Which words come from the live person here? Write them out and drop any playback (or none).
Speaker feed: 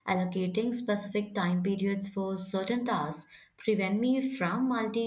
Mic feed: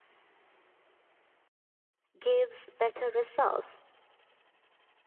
gives better results.